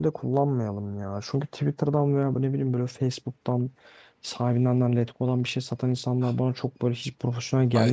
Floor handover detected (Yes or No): Yes